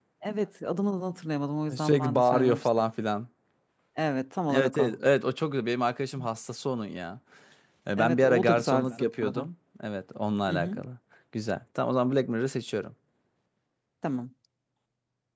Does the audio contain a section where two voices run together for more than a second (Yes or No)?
Yes